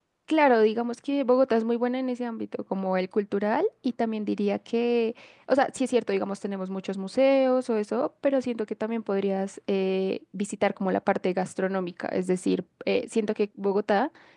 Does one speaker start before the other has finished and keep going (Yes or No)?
No